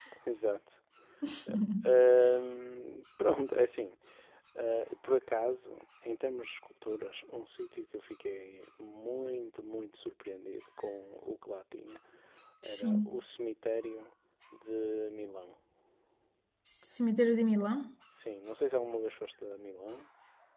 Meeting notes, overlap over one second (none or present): none